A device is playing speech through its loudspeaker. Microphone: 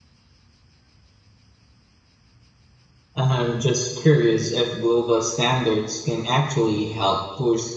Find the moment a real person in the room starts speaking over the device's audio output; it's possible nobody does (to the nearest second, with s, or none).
3 s